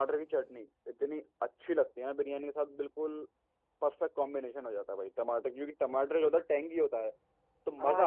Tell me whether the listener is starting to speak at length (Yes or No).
Yes